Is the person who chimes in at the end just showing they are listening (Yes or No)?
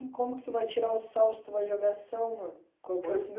No